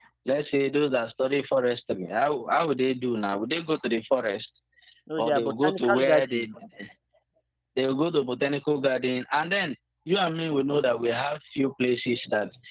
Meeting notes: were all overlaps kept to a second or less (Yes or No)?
No